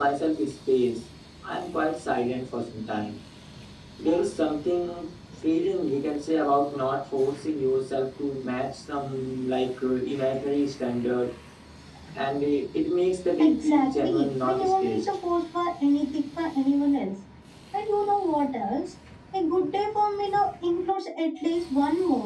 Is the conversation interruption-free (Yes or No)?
No